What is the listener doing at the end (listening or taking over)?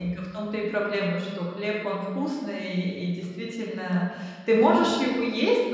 listening